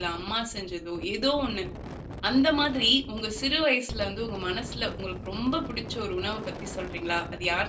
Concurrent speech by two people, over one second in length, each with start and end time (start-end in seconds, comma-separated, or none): none